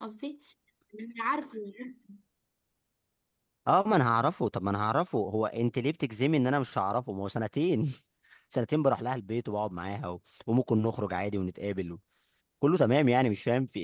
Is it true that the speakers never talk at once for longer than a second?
Yes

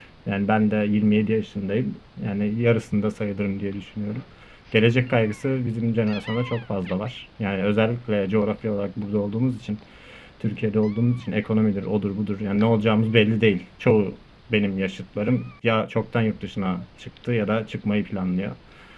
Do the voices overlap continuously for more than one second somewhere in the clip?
No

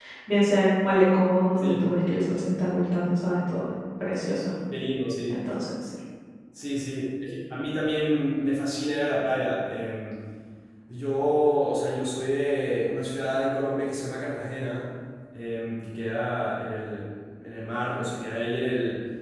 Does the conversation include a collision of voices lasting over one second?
No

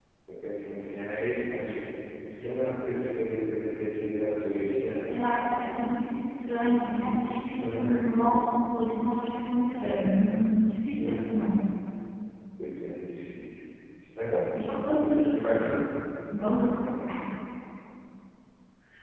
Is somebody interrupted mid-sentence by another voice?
Yes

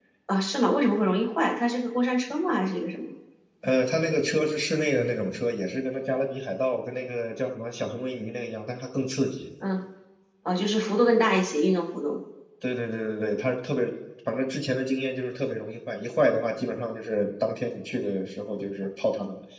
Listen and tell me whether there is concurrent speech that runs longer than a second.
No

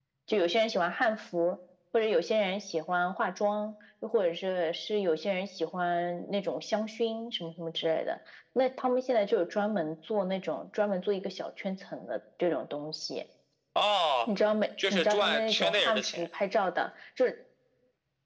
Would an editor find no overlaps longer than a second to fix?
No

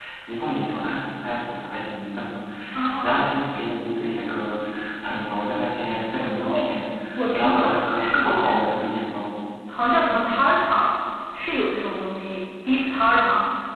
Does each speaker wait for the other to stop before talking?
No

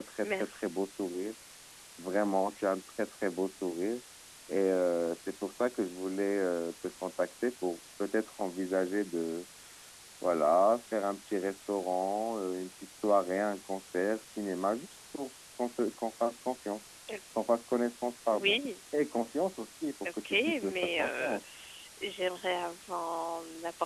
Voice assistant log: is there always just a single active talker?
No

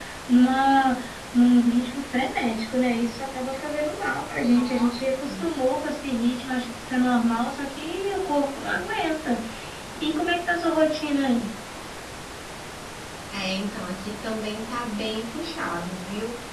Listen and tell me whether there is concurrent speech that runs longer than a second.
No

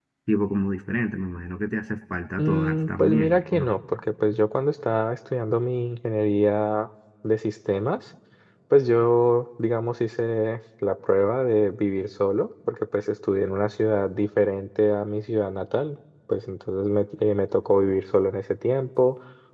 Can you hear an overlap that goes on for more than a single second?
Yes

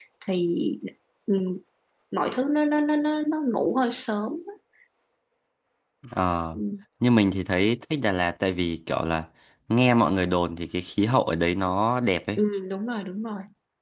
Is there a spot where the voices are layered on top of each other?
No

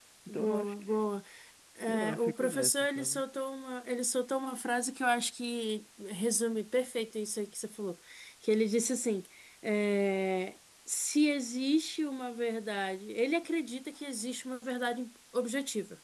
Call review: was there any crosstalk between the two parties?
Yes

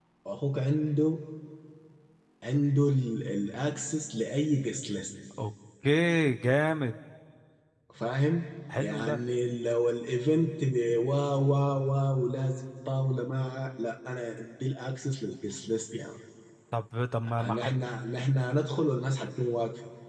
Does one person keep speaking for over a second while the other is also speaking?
No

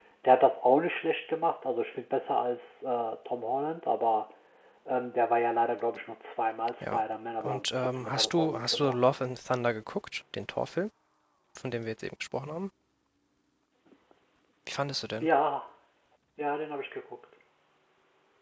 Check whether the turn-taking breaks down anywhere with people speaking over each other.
Yes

